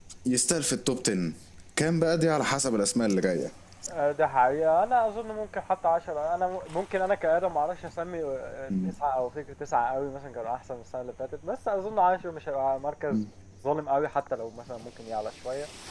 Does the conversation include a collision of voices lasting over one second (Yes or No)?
No